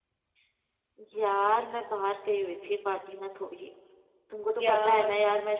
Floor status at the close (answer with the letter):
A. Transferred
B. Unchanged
B